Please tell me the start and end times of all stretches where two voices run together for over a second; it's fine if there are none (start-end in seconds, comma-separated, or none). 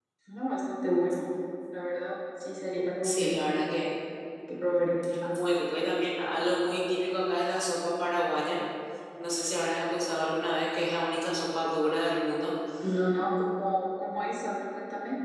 none